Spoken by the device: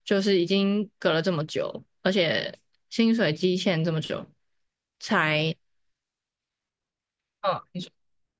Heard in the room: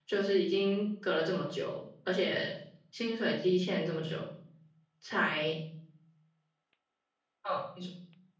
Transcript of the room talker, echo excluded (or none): none